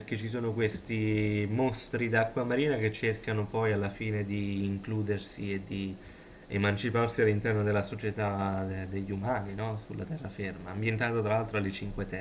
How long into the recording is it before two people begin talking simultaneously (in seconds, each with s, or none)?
none